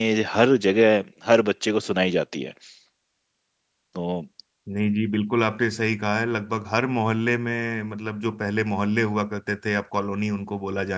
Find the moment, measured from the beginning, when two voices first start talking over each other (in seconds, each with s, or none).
none